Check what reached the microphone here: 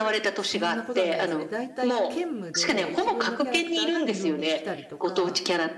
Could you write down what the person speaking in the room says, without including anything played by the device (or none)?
そんなことはないですね。大体兼務で一軍のキャラクターが二軍に来たりとか、